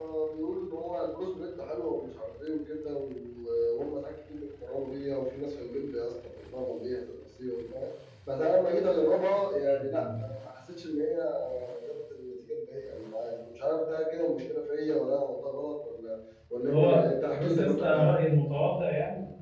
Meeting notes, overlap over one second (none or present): present